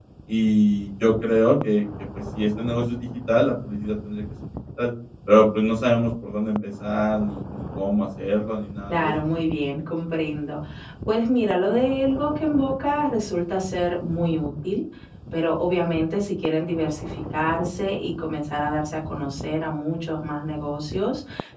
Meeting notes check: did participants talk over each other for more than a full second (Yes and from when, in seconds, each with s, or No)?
No